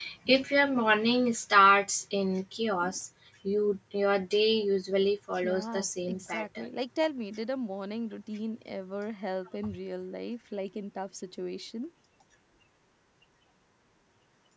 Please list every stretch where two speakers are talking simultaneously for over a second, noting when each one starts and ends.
5.4-6.7

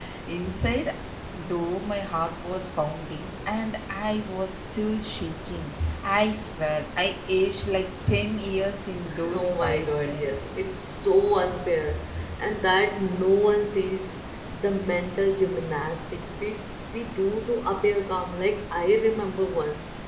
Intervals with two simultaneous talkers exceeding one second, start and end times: 9.3-10.5

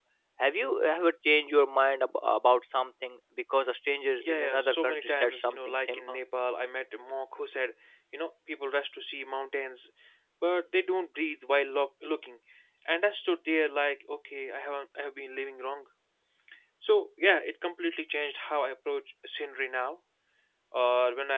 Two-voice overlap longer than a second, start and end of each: 4.2-6.2

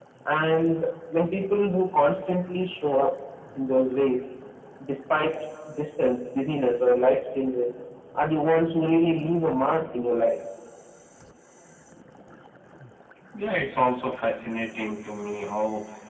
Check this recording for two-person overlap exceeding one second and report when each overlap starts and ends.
none

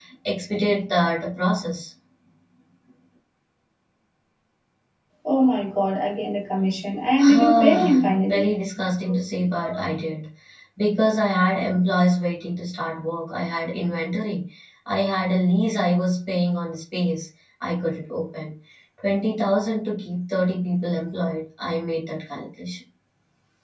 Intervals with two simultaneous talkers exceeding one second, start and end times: 7.3-8.5

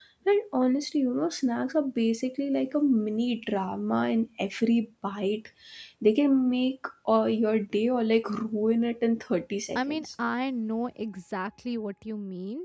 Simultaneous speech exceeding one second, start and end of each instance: none

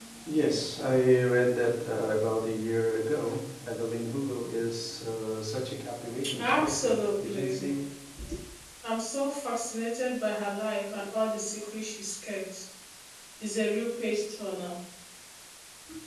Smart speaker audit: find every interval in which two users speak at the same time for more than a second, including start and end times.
6.4-7.6

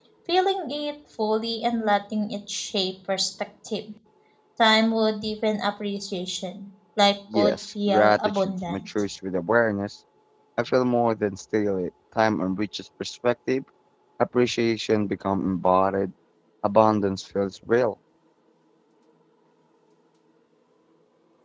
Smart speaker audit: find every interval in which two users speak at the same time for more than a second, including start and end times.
7.3-8.8

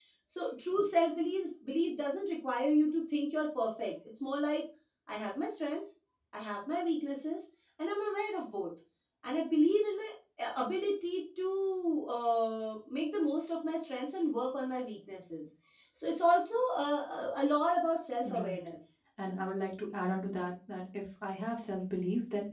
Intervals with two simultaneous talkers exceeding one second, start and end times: none

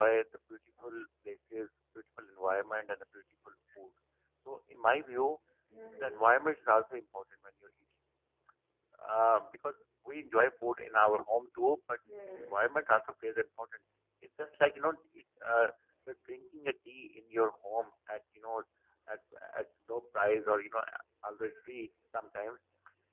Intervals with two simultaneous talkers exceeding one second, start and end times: none

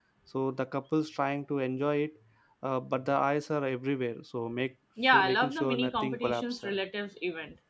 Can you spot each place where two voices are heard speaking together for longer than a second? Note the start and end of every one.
5.0-6.8

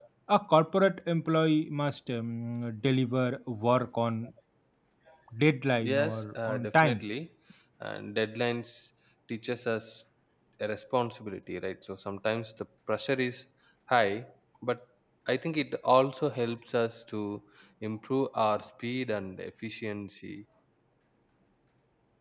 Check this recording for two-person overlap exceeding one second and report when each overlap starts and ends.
5.8-7.0

